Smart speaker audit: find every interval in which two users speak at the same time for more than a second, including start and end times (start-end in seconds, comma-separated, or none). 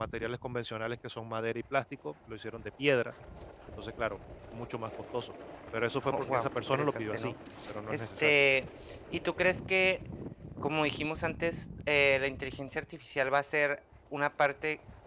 6.1-7.3